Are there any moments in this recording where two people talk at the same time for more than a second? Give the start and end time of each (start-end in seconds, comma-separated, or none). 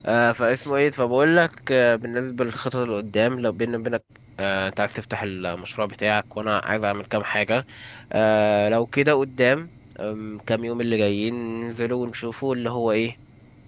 none